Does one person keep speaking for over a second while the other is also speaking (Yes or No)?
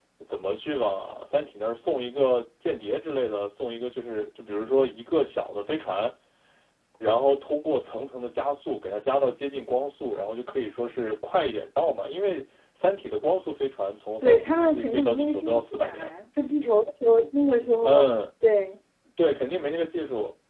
Yes